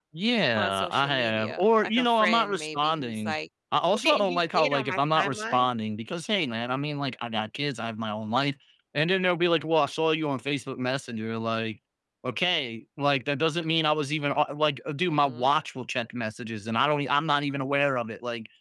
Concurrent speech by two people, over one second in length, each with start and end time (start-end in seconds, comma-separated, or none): 0.6-3.4, 3.9-5.7